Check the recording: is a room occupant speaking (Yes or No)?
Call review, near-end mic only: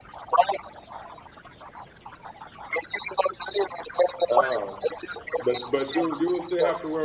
Yes